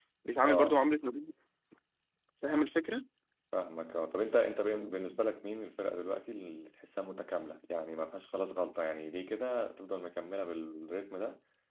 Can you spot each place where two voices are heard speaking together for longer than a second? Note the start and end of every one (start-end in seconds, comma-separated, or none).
none